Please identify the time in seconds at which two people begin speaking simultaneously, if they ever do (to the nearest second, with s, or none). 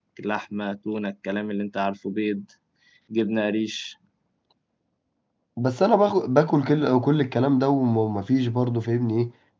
none